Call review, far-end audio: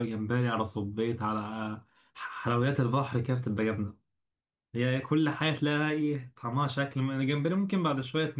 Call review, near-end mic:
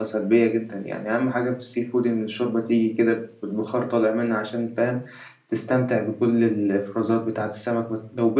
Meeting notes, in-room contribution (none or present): present